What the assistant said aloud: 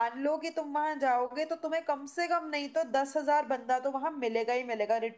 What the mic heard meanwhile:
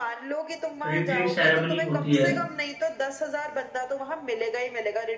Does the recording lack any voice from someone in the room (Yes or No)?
No